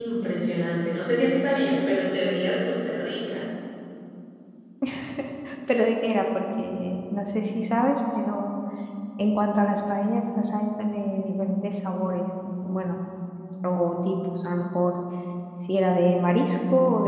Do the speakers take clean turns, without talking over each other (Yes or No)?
Yes